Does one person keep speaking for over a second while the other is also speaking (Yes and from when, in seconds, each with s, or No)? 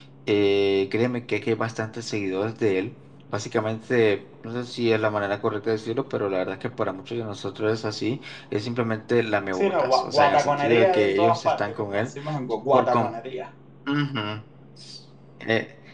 Yes, from 9.5 s